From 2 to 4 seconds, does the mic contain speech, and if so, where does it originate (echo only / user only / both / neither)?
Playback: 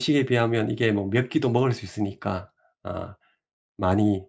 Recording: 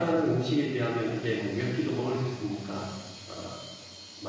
echo only